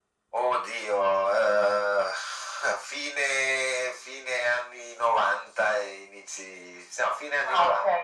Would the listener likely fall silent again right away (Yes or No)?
No